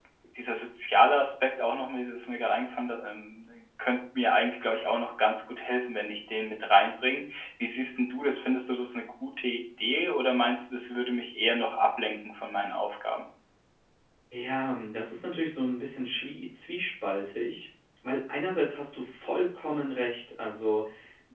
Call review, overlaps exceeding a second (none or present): none